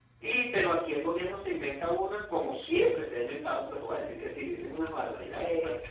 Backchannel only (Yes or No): Yes